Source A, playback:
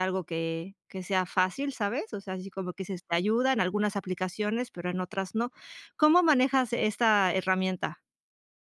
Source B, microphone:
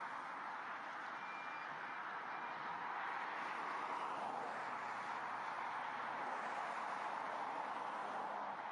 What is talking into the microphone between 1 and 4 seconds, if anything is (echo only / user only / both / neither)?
neither